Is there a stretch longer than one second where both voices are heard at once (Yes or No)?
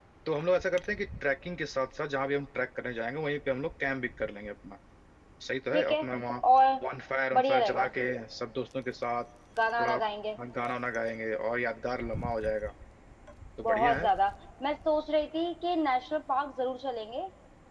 No